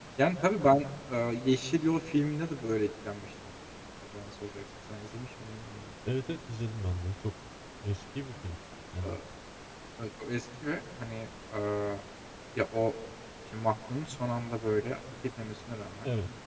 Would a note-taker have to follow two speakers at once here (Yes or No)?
No